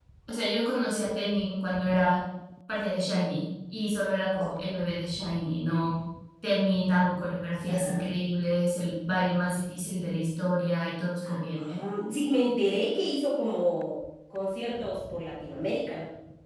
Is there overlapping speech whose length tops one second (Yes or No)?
No